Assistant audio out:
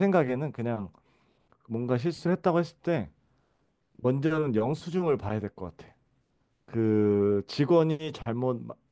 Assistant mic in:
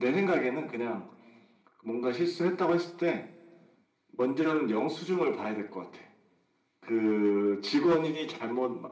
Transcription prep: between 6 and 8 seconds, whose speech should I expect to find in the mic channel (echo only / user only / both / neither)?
echo only